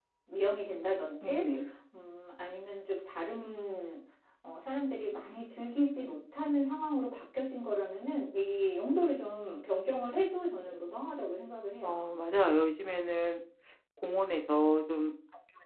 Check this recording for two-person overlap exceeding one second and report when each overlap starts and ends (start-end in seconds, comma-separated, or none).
none